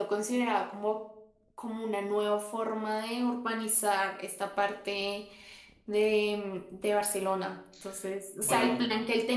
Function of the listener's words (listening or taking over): listening